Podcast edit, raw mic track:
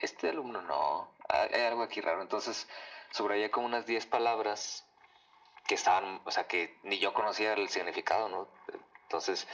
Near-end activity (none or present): none